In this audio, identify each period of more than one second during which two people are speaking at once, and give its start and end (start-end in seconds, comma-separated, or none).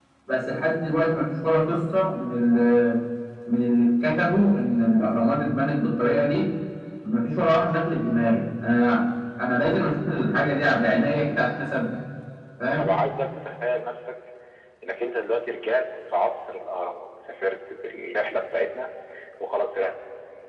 none